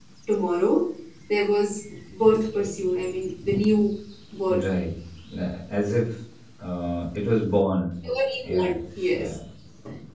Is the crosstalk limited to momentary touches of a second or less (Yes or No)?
Yes